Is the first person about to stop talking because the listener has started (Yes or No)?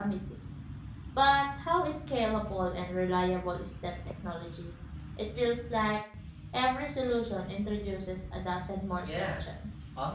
Yes